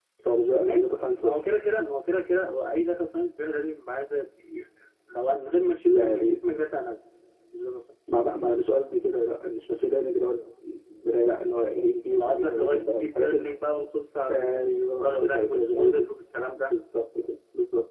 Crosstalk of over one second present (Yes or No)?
Yes